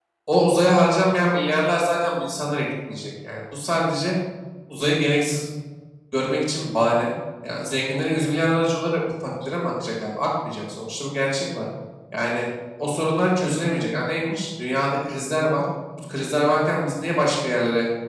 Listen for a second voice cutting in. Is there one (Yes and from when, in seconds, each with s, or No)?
No